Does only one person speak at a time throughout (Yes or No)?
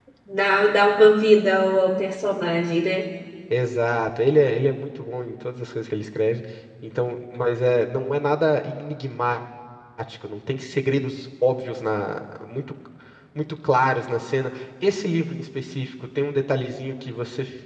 Yes